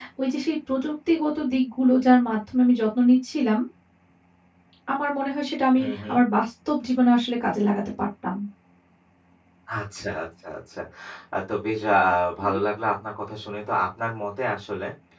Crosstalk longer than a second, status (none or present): none